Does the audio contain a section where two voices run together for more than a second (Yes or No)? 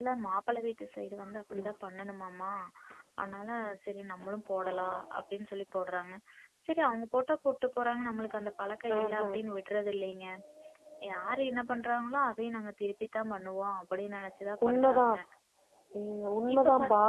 No